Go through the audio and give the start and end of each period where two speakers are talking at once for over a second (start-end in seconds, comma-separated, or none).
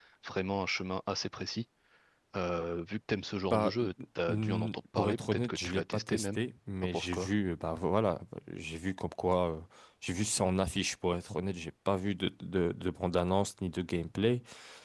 4.3-6.4